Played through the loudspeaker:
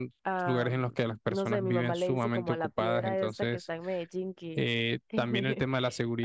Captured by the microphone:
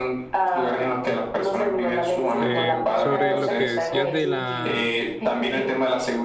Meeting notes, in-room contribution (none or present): present